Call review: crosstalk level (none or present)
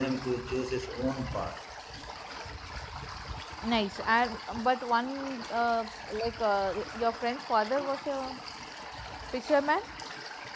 none